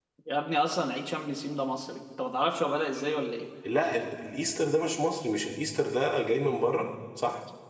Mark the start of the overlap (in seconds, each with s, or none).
none